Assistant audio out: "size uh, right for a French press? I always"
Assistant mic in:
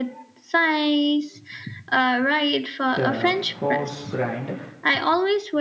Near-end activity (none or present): present